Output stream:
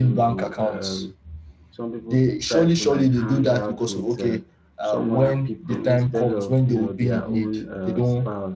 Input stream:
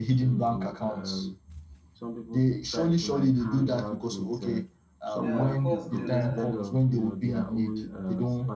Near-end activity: present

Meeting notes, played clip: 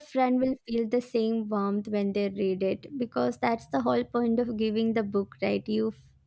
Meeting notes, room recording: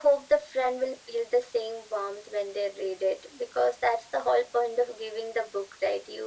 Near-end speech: none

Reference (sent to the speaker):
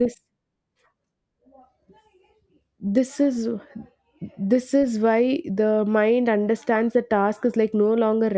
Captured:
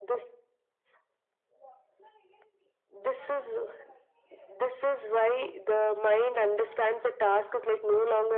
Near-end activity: none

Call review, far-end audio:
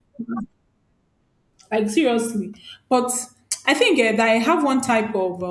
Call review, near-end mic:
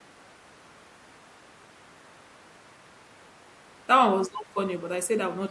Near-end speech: present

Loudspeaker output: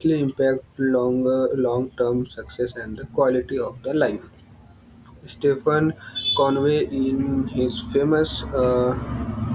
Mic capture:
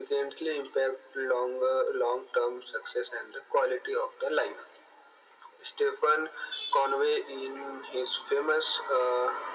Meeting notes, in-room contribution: none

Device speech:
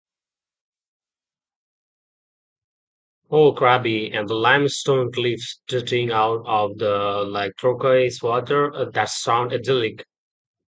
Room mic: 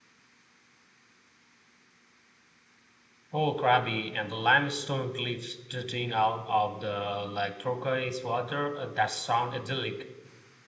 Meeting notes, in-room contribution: none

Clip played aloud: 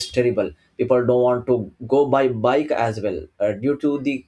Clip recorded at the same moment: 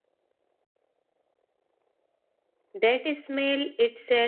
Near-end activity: present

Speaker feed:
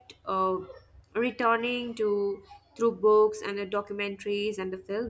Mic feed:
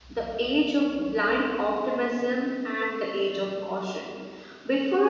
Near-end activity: present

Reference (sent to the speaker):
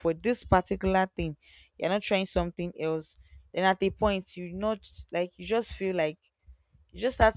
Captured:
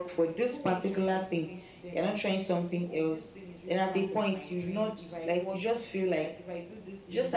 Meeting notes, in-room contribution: present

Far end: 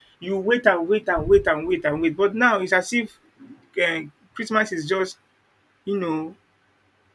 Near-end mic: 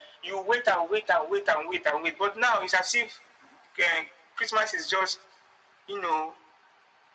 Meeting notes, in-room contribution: none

